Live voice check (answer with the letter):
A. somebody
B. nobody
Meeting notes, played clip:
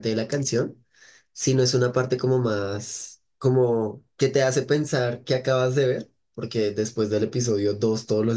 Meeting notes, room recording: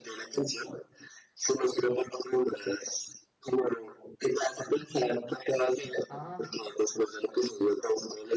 A